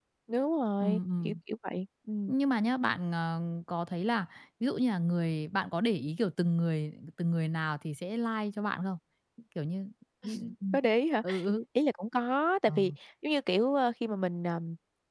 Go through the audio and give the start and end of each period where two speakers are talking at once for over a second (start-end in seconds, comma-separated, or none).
none